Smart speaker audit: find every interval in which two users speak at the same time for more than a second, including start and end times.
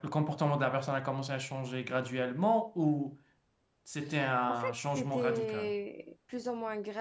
4.5-5.7

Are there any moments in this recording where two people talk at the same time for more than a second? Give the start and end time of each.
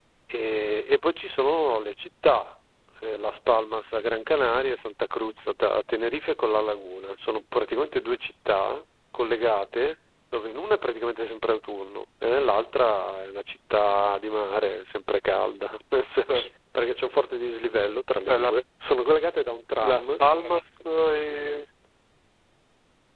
none

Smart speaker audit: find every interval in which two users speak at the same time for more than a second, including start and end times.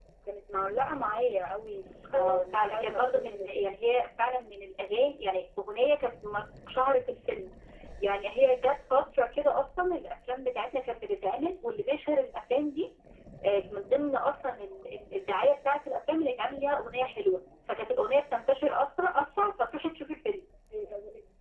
2.1-3.5

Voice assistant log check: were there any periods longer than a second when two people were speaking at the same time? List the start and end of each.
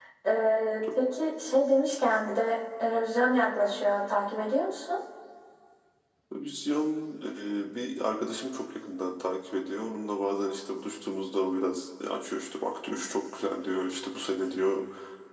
none

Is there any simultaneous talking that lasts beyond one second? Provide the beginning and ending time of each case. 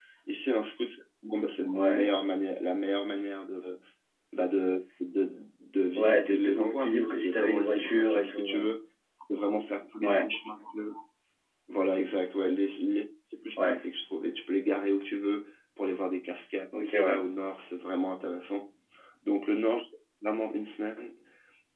6.0-8.6

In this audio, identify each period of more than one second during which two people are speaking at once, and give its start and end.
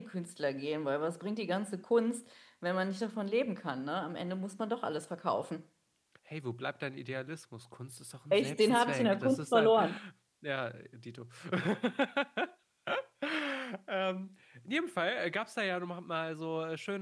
8.3-9.7

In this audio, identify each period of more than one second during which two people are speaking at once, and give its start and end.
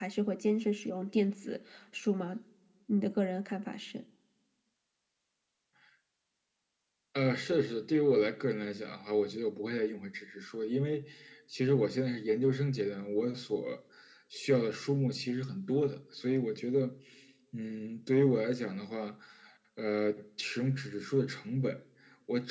none

